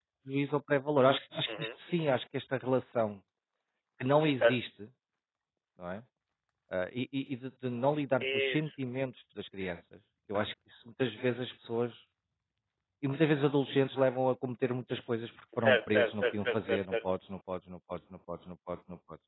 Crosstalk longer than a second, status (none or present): present